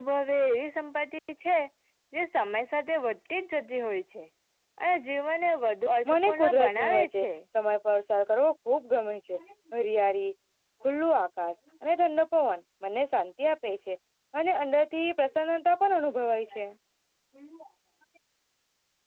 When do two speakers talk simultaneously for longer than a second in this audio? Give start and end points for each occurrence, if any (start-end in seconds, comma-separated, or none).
6.1-7.3